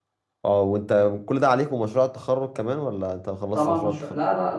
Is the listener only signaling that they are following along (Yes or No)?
No